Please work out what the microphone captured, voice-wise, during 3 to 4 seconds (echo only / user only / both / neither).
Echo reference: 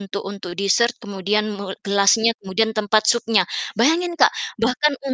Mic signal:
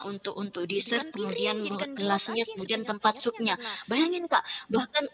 both